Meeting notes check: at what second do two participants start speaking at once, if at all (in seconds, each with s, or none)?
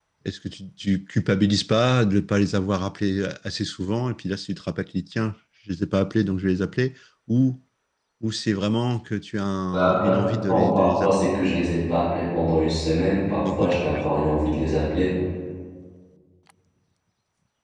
9.7 s